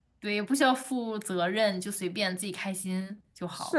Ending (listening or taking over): taking over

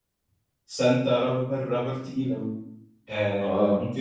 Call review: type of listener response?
listening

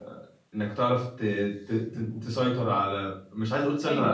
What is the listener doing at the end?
taking over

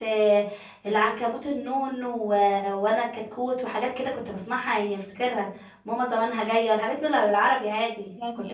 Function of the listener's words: taking over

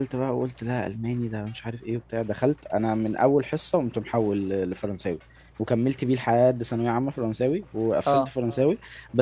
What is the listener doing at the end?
listening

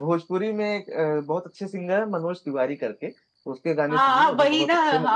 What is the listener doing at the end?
taking over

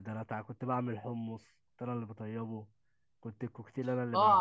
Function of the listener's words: taking over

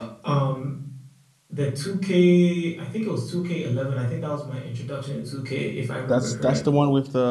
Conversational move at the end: taking over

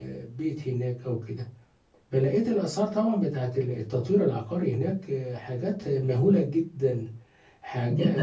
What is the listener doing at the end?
taking over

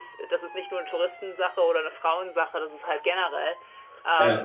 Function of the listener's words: listening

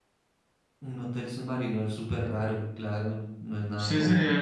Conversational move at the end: taking over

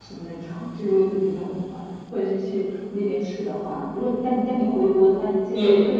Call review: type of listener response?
taking over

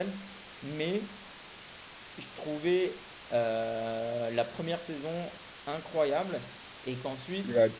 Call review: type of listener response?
listening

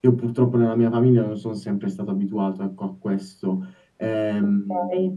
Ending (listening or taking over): taking over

